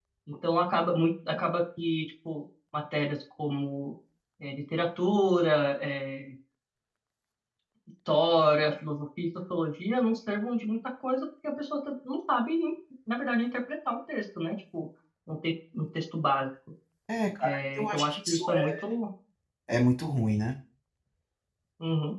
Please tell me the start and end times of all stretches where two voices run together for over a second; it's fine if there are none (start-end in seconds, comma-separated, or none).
17.4-18.7